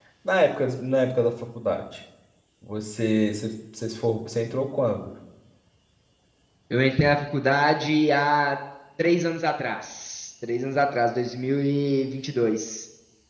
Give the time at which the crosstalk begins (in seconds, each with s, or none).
none